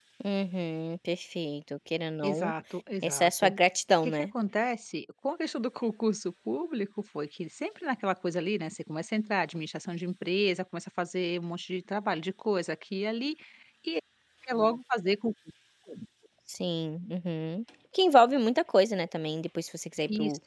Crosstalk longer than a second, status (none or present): none